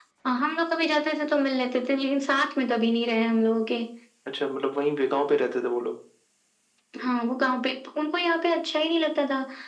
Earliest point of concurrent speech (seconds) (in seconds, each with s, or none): none